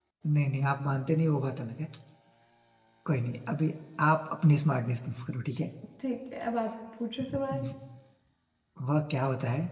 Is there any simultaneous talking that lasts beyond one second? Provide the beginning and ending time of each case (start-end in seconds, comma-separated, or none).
none